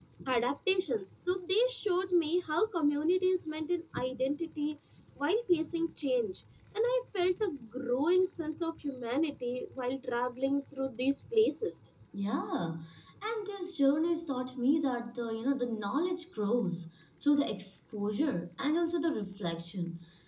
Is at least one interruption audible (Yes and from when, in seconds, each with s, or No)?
No